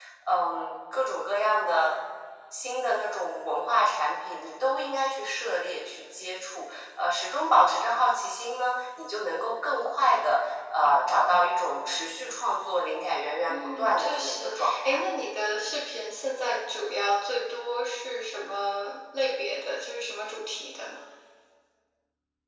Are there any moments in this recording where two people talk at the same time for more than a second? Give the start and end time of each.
13.5-15.0

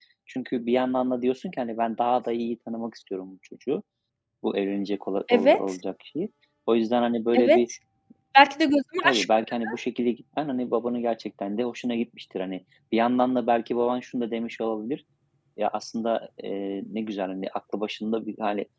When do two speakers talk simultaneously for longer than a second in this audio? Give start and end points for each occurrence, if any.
none

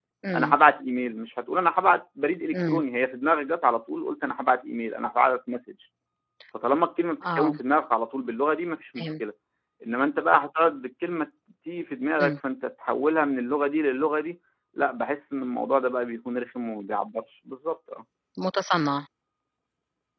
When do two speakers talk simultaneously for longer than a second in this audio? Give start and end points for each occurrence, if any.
none

